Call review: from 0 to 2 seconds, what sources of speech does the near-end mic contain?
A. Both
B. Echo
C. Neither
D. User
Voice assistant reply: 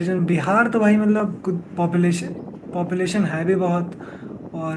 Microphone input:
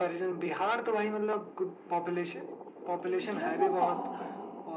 B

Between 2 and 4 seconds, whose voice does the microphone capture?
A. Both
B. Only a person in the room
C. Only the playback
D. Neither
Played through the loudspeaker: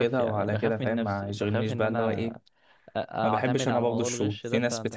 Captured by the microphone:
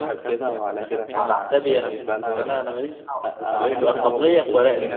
A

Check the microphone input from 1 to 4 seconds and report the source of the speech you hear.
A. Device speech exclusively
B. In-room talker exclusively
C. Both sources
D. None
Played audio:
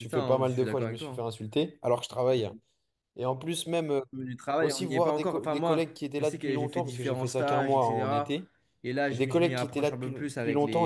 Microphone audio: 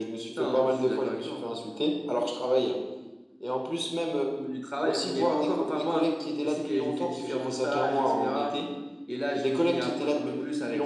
A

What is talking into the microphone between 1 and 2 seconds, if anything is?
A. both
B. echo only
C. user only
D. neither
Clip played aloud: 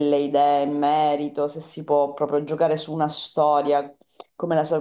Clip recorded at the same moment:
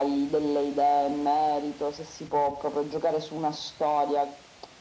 B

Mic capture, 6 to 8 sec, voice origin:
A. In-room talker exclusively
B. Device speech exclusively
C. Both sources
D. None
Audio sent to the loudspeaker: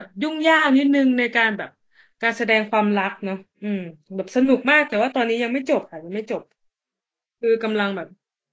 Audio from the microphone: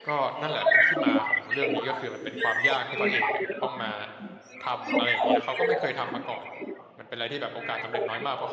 C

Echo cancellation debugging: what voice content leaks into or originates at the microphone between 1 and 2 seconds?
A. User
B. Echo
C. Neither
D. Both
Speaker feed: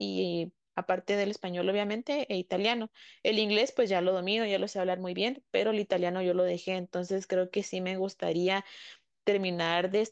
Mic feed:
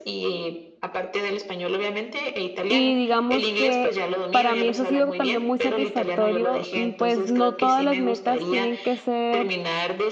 B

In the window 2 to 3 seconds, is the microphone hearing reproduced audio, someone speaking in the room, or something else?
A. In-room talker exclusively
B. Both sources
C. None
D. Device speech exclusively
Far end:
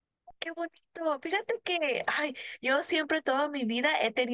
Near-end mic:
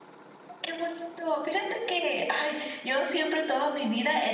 D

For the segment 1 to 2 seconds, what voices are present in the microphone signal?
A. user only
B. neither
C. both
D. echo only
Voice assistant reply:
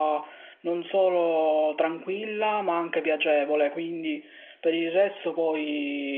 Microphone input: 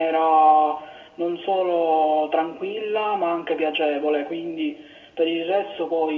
D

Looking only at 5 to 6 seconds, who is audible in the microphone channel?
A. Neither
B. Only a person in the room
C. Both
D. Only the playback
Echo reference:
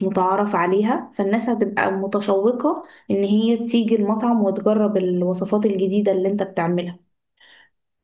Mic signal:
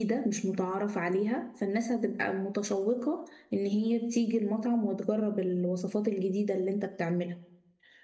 D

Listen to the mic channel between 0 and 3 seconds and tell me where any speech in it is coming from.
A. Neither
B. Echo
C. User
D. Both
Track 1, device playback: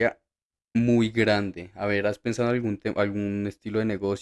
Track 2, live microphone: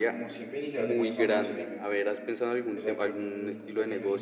D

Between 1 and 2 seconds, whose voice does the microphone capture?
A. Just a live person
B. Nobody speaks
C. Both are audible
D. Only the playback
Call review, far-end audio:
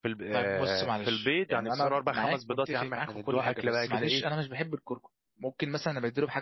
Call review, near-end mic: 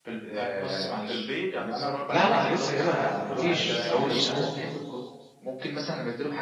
D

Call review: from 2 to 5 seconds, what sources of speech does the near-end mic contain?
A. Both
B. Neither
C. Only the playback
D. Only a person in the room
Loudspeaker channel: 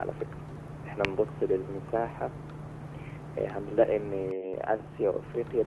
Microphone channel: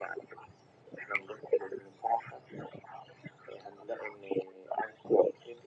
C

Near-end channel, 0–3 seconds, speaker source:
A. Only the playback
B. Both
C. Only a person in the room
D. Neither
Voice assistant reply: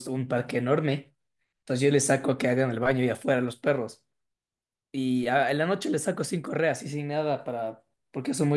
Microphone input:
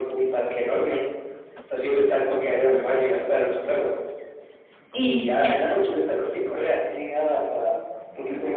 A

